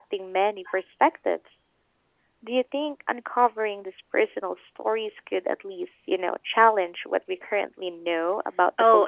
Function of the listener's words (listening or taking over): taking over